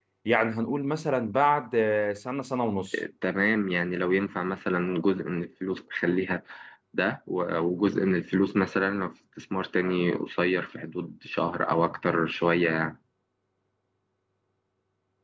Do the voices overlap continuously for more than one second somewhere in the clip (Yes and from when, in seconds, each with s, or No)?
No